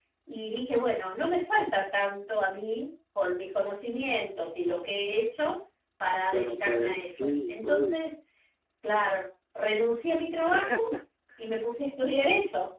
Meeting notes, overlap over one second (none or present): present